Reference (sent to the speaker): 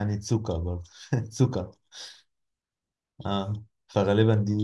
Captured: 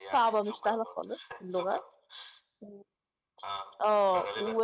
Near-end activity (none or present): present